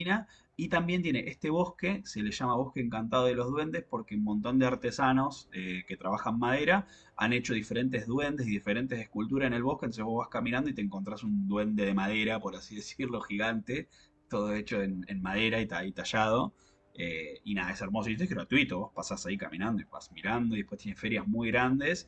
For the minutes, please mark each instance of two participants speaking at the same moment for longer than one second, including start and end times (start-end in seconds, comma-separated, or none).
none